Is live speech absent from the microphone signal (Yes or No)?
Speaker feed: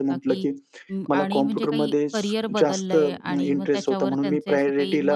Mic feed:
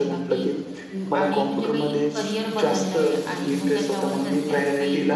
Yes